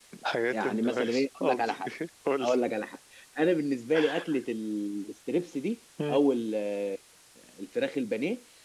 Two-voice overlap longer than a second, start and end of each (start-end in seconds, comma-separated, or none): 0.5-1.9